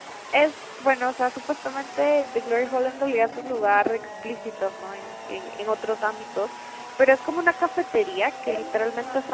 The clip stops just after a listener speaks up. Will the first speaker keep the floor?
Yes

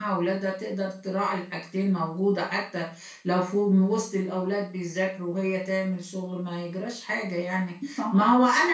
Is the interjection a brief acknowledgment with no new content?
Yes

